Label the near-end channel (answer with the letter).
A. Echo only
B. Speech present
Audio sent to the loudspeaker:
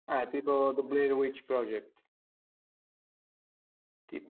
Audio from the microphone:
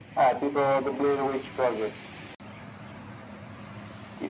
A